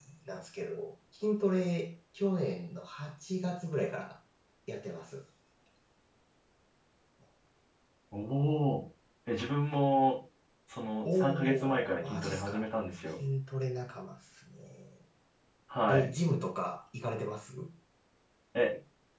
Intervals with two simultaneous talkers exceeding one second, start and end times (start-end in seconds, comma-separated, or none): 11.0-12.6